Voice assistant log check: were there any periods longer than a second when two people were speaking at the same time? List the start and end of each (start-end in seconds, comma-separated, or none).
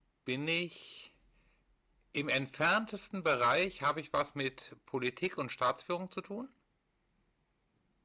none